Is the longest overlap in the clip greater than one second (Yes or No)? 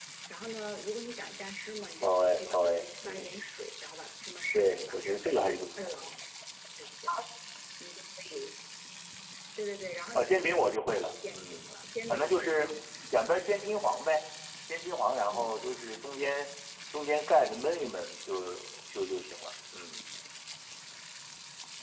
Yes